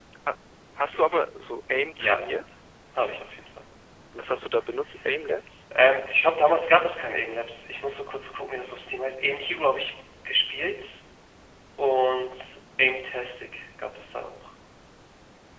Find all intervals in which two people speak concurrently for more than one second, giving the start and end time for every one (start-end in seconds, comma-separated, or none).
none